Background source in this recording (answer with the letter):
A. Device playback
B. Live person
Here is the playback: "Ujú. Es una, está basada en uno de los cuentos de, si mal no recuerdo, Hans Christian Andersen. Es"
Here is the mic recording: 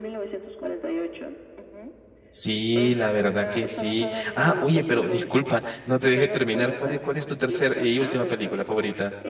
A